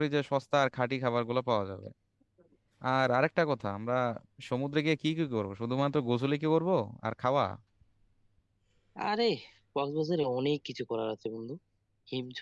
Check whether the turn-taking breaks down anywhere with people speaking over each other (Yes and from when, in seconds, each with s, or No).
No